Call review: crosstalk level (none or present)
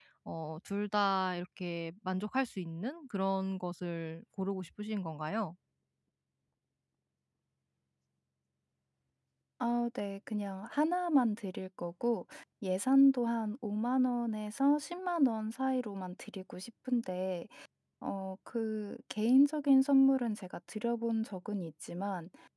none